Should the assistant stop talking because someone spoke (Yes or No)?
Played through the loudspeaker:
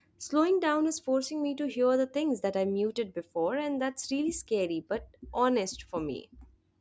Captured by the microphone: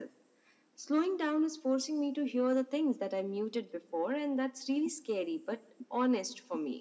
No